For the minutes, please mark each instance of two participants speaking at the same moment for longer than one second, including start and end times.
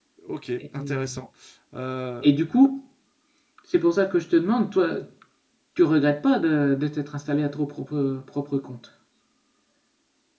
none

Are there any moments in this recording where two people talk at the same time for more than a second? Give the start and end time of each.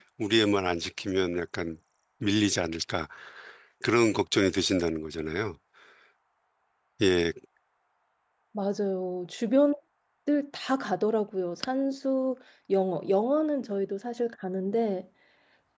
none

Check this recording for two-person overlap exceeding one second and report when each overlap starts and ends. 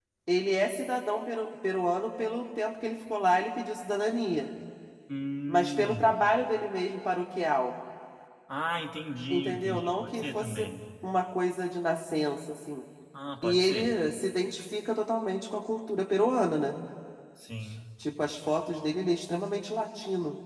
9.3-10.7

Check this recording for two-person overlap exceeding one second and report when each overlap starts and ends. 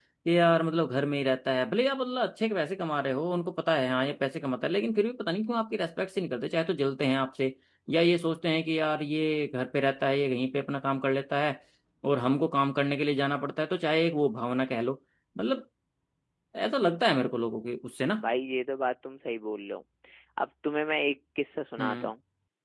none

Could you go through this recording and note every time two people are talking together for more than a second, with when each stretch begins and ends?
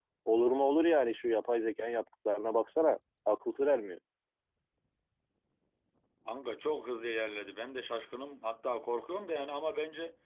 none

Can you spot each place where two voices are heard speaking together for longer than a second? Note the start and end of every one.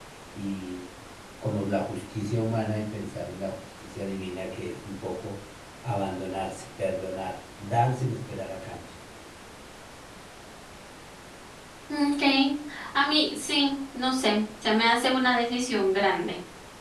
none

